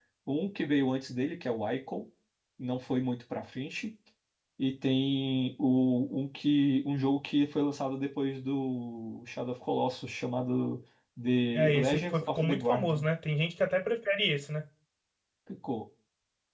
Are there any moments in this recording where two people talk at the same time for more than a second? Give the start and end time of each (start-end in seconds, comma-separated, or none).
11.5-13.1